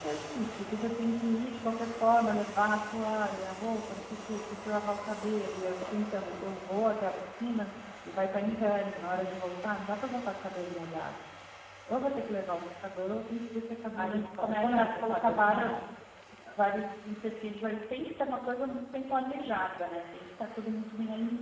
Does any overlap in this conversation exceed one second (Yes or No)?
Yes